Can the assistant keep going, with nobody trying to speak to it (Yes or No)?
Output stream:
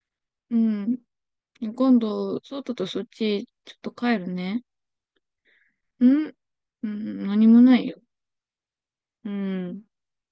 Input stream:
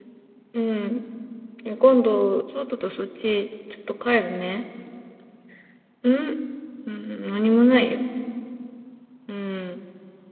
Yes